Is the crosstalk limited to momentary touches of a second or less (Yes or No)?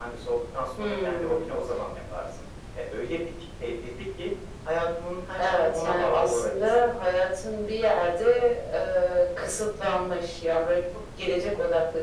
No